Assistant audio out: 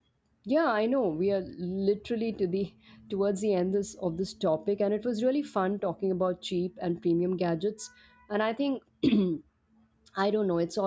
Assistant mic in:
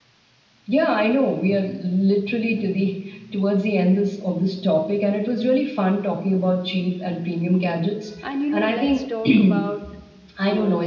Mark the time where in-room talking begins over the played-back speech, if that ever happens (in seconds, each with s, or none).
8.2 s